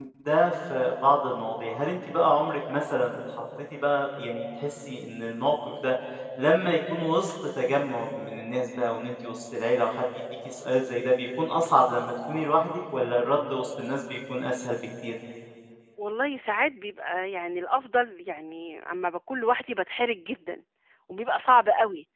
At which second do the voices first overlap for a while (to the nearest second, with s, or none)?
none